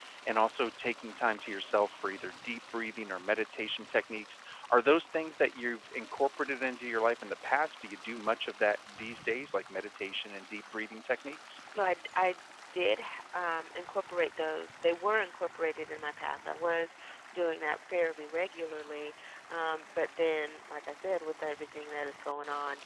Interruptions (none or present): none